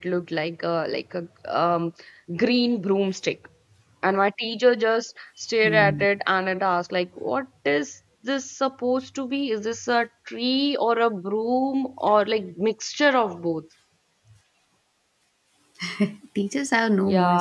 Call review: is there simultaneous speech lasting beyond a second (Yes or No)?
No